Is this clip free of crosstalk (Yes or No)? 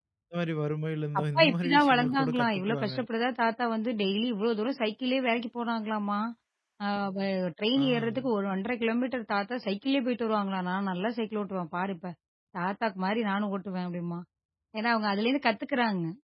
No